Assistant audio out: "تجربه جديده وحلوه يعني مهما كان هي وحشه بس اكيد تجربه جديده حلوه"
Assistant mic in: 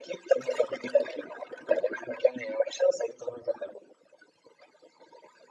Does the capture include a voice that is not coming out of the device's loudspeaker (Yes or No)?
No